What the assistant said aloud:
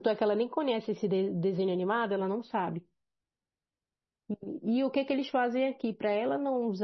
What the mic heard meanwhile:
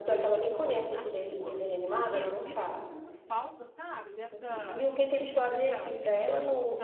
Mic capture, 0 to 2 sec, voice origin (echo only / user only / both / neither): both